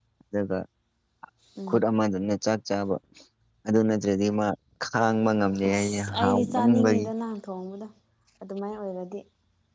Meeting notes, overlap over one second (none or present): present